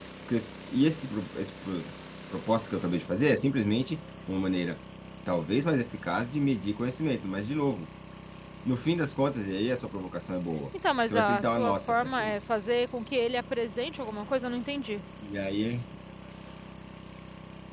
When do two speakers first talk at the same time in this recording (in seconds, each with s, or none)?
11.0 s